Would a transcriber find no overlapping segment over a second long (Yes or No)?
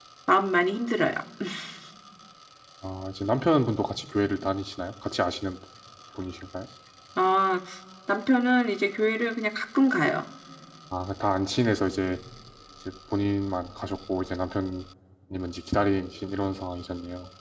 Yes